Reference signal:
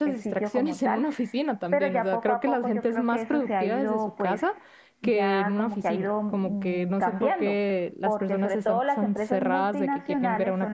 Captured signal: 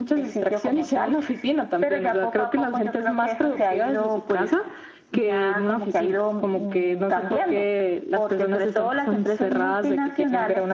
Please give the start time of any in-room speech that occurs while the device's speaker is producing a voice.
none

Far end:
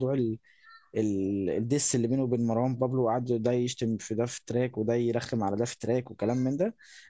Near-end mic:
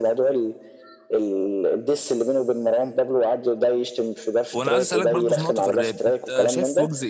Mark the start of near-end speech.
4.5 s

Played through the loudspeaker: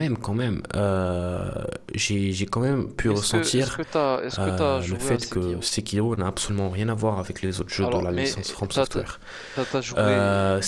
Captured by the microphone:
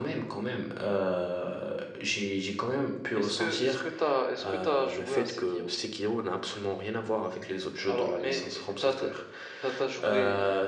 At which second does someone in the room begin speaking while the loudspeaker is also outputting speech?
none

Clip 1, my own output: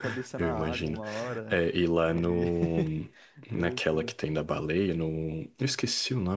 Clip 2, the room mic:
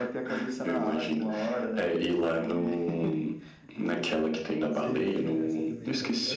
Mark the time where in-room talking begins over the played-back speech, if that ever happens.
4.7 s

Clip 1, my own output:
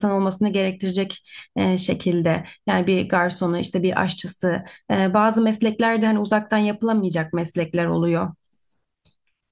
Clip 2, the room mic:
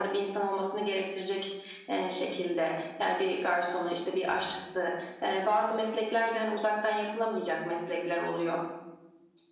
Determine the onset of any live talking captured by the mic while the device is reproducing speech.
none

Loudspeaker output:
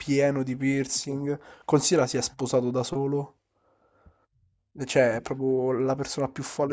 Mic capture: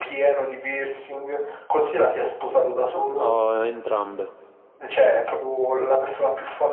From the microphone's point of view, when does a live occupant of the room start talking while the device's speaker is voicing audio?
3.1 s

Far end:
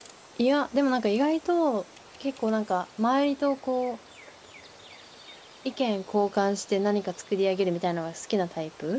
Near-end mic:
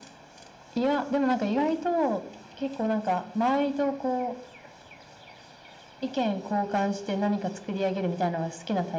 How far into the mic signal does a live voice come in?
none

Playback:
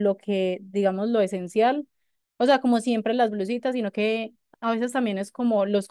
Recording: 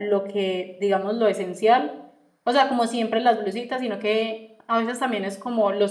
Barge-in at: none

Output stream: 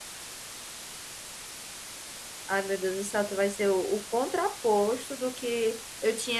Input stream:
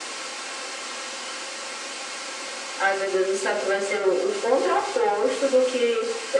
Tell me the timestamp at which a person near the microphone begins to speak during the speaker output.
none

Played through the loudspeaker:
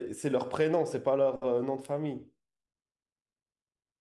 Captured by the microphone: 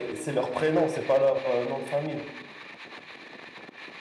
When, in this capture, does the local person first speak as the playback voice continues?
none

